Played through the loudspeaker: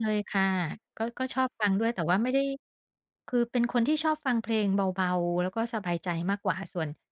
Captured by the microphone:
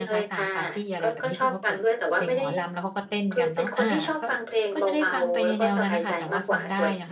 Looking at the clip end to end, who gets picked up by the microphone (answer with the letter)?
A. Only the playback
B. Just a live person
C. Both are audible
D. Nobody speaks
C